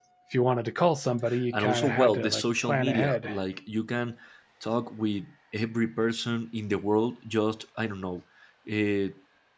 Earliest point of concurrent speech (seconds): 1.5 s

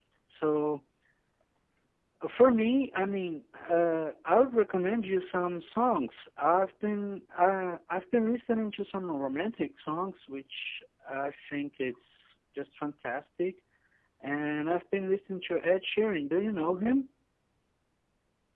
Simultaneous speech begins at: none

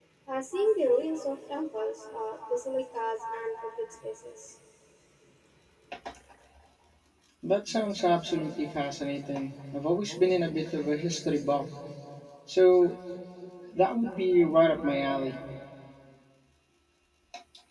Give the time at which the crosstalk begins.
none

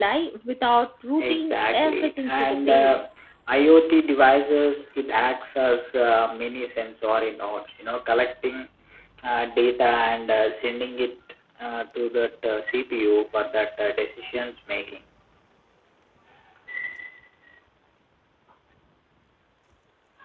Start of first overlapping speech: 1.2 s

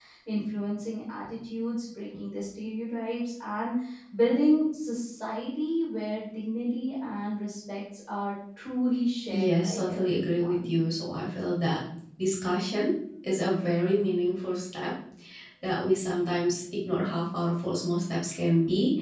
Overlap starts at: 9.3 s

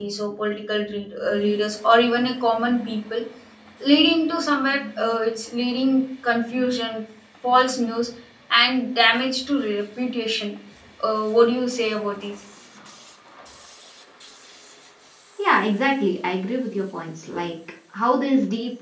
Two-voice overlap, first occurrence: none

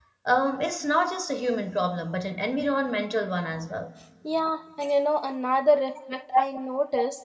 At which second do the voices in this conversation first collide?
none

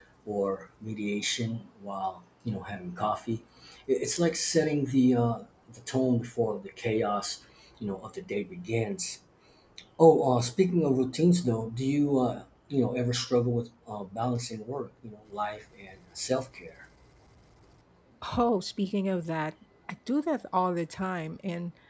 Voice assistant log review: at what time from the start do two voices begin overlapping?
none

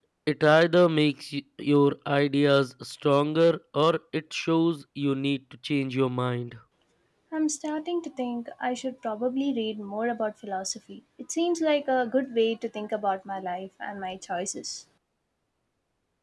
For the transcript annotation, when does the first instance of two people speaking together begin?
none

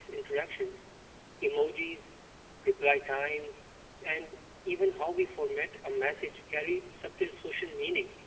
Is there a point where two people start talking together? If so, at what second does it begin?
none

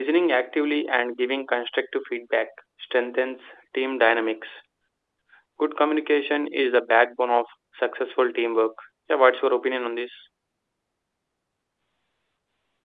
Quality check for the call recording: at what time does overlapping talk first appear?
none

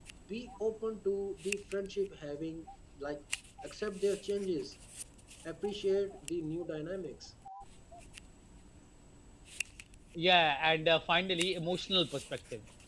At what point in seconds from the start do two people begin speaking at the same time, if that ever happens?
none

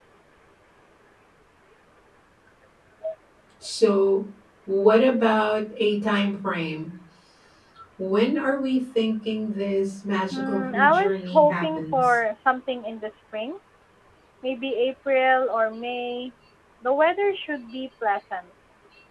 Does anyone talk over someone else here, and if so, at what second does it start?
10.3 s

